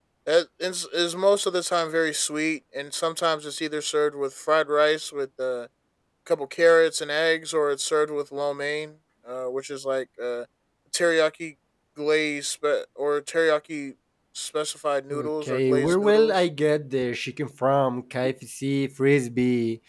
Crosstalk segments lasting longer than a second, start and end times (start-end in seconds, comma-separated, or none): 15.1-16.3